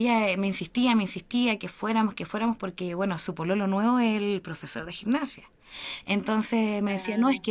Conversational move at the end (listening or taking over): listening